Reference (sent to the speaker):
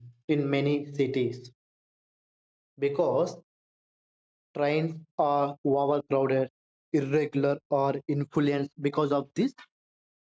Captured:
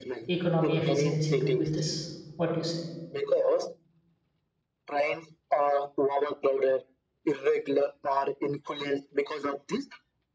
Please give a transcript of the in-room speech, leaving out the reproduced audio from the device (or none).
economy efficiency too with this what do you say